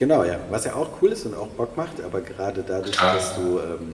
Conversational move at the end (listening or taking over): listening